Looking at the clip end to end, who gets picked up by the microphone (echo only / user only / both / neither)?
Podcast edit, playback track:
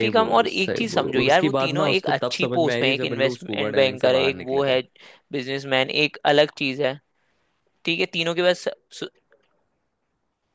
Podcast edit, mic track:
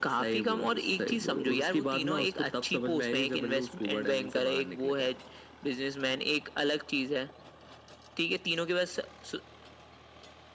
echo only